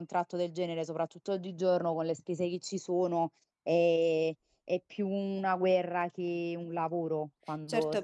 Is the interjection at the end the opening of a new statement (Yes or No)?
Yes